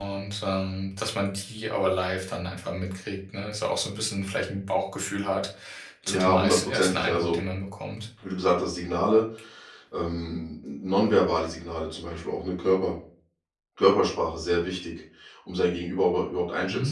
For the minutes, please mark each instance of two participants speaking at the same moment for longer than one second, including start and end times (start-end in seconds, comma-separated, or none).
6.1-7.4